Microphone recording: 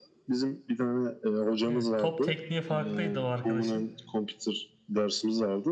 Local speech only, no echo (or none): Evet, top tekniği farklıydı o arkadaşın.